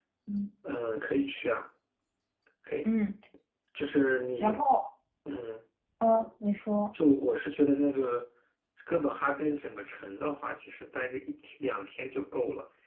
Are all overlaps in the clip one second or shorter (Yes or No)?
Yes